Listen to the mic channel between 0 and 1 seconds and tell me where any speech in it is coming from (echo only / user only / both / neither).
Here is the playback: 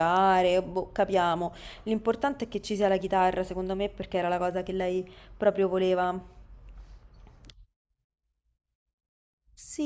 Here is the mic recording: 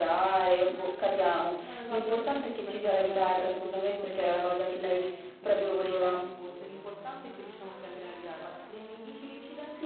echo only